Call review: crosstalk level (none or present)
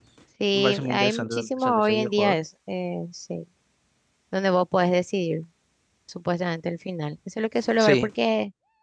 present